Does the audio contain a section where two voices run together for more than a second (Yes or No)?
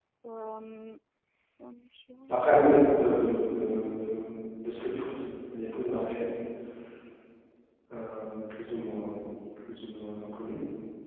No